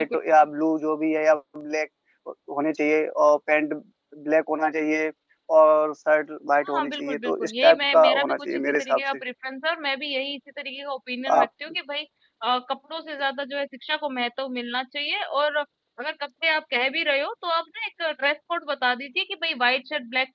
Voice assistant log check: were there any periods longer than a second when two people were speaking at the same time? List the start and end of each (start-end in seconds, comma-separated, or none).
6.7-9.0